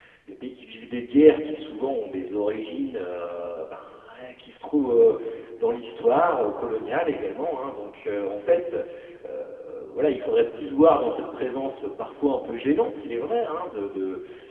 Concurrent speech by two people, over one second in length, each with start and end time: none

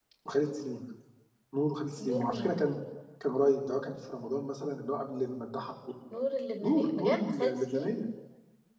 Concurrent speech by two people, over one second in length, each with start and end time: 6.6-7.9

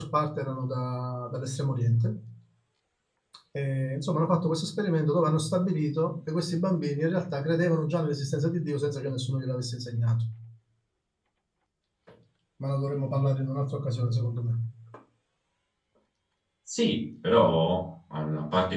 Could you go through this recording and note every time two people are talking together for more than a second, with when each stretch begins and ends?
none

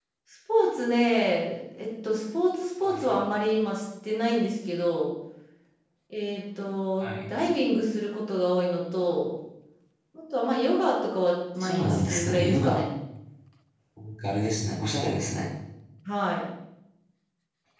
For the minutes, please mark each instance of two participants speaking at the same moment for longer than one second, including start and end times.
11.6-12.8

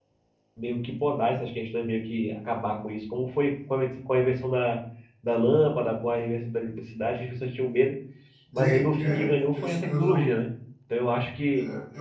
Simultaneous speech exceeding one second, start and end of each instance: 8.6-10.3

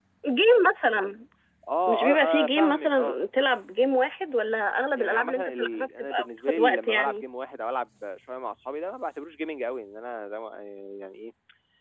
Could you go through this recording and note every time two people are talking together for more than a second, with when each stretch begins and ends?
1.9-3.2, 5.0-7.2

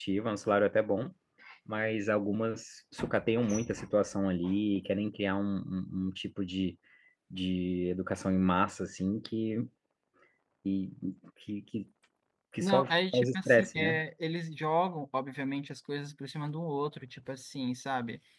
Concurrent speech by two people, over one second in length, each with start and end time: 12.6-14.0

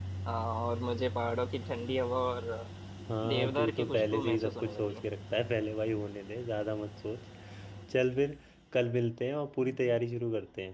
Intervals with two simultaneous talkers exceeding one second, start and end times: 3.3-5.0

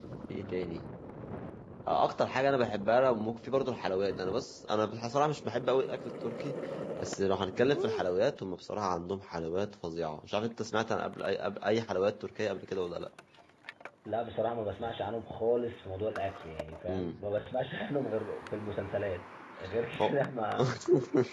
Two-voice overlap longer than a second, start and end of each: none

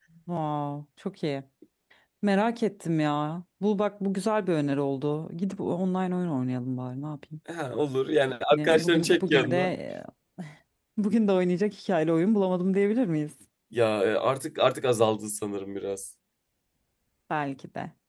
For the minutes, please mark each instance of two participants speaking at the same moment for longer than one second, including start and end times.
8.5-9.7

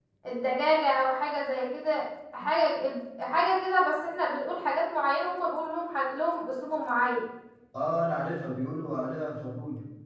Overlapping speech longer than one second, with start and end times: none

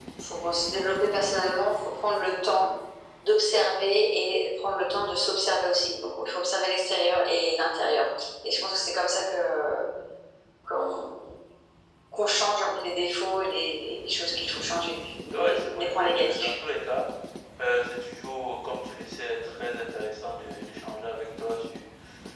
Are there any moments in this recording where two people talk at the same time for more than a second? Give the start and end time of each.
15.3-16.6

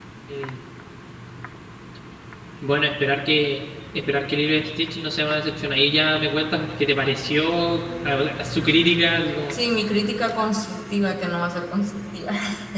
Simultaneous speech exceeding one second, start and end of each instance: none

